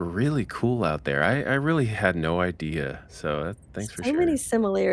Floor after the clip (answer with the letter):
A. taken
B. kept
A